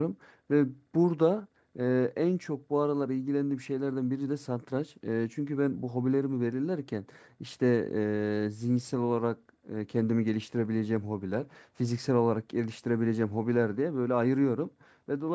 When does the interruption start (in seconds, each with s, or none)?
none